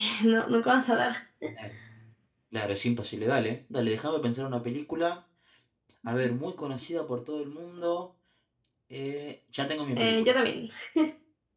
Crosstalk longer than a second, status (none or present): none